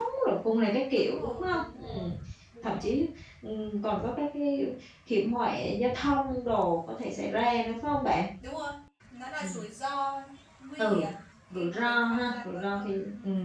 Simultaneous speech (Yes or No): Yes